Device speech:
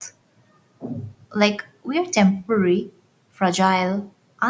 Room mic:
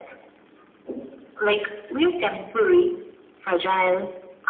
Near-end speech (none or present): none